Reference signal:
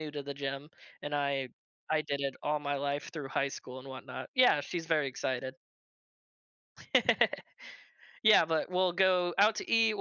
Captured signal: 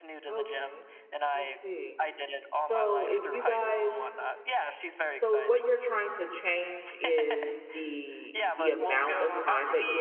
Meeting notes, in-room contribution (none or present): present